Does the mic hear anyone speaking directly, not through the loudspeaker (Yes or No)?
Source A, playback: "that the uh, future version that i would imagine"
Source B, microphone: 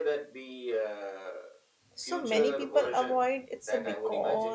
Yes